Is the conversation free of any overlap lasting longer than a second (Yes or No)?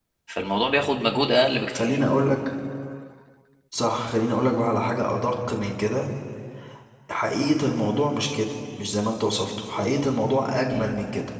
Yes